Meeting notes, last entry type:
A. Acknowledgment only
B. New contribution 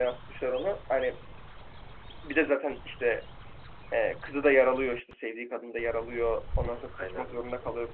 A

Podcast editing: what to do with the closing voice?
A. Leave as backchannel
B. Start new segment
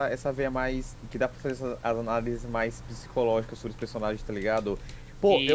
A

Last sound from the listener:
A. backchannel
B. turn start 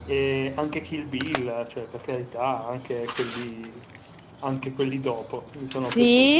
B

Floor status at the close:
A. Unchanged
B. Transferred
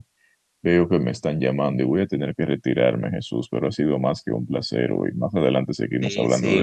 B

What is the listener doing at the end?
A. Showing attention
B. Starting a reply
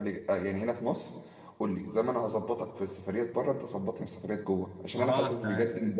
A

